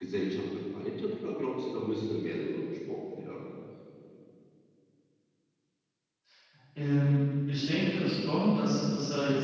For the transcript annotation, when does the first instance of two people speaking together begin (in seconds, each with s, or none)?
none